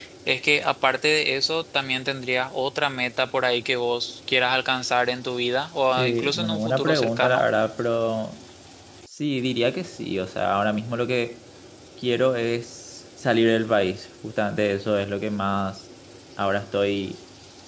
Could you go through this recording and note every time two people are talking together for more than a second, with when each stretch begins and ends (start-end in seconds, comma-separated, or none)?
5.9-7.5